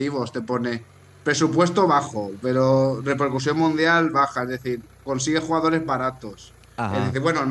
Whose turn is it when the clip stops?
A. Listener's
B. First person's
B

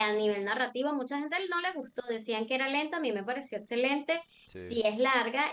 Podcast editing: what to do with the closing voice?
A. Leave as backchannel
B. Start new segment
A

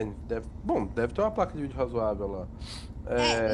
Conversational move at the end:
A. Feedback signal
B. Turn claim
B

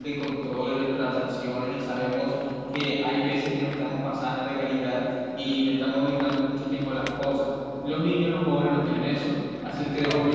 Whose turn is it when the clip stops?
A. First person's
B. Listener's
A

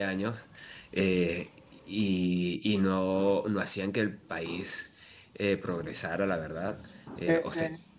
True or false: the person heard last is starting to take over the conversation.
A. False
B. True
A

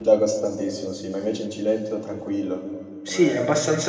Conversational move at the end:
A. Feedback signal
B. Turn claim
B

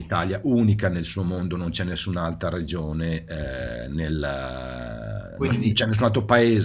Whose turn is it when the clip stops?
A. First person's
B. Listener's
A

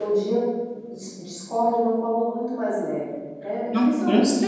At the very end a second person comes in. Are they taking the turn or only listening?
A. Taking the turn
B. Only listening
A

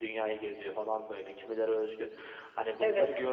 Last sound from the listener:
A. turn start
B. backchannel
B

